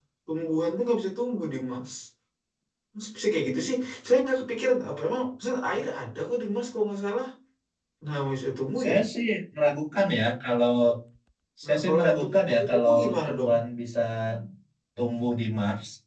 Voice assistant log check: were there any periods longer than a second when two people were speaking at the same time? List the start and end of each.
11.6-13.5

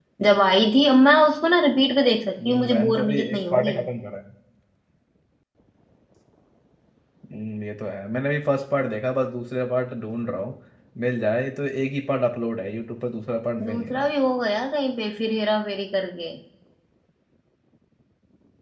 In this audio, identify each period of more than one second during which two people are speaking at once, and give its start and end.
2.5-3.8

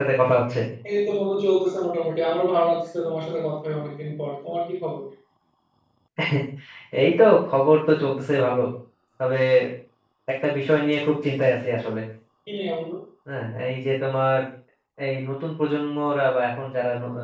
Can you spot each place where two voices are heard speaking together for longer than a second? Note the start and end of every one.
none

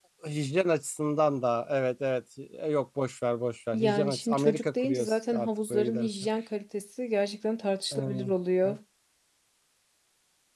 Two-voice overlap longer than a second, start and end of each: 3.7-6.1

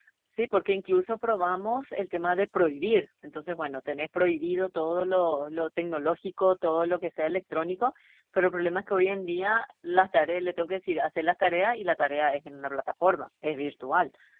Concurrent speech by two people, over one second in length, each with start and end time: none

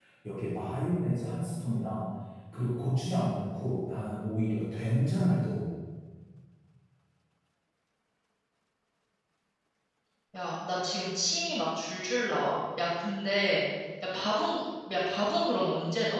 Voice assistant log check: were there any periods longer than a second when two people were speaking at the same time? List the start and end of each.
none

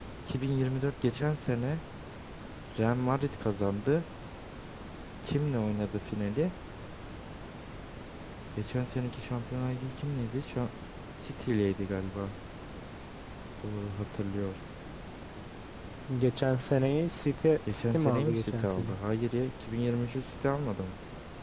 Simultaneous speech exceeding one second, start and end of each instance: 17.7-19.0

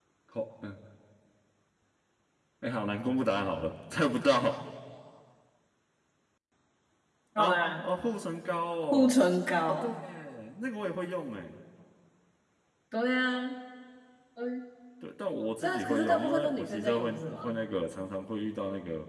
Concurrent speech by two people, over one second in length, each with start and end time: 15.6-17.6

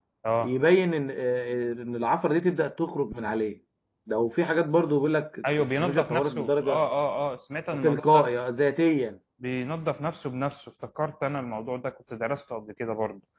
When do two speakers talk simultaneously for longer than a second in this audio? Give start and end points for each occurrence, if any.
5.6-6.8

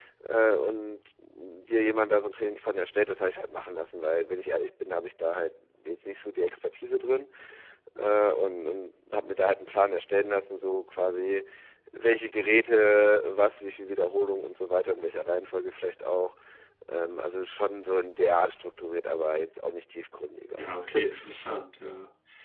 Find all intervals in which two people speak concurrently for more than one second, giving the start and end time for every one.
none

